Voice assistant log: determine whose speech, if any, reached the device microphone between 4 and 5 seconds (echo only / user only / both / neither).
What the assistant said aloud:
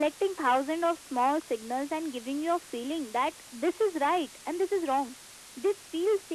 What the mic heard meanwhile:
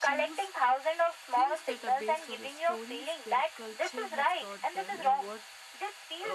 both